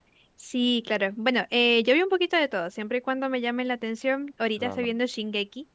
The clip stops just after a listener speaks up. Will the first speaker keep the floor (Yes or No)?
Yes